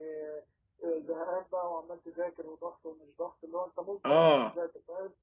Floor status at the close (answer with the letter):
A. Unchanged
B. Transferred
A